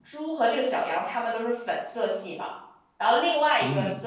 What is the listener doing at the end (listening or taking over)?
listening